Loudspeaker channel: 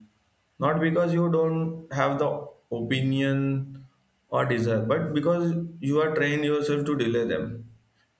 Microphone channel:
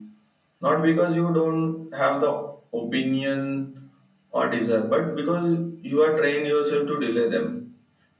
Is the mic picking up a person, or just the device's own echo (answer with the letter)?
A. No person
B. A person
A